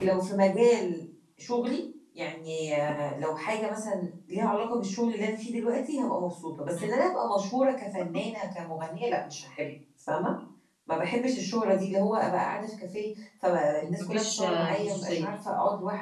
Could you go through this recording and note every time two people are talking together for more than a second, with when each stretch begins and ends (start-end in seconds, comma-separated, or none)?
13.8-15.2